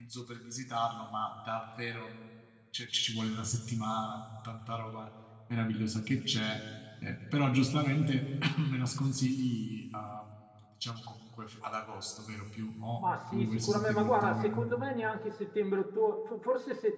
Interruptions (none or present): present